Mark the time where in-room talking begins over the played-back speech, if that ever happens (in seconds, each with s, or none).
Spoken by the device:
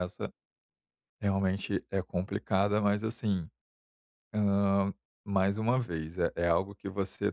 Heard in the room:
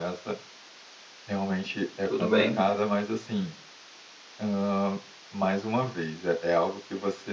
2.0 s